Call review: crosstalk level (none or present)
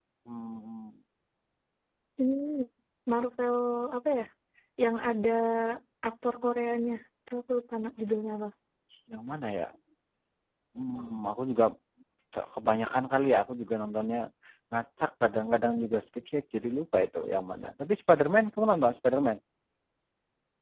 none